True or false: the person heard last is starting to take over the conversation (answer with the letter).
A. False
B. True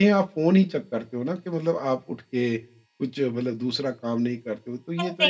B